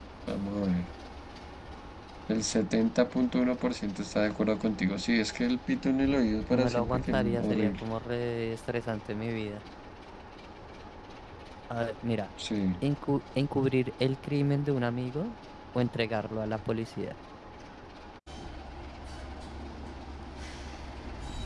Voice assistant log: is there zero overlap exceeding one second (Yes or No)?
No